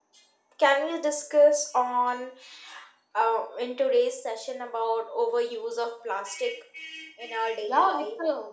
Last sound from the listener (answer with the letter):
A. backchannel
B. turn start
B